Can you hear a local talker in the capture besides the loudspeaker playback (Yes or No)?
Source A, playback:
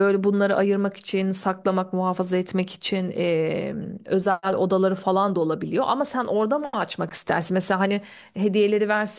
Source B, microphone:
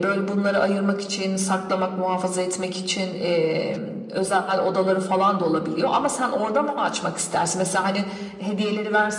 No